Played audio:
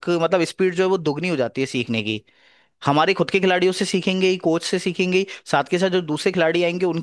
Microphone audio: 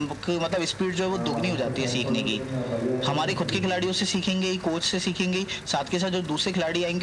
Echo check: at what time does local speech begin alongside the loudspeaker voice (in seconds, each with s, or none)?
1.1 s